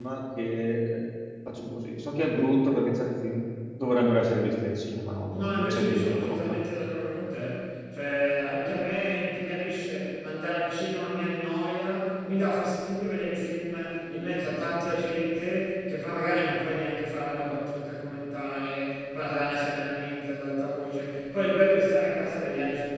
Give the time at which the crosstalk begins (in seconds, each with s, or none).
5.3 s